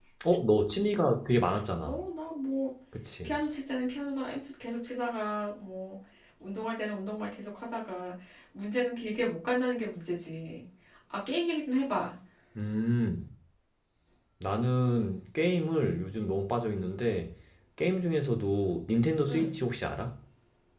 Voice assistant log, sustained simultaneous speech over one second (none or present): none